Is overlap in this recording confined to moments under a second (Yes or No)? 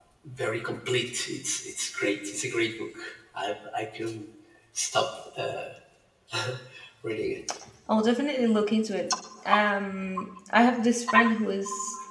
Yes